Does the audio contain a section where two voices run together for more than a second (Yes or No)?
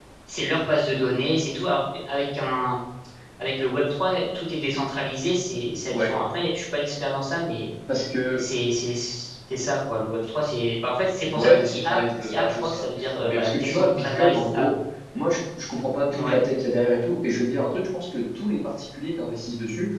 Yes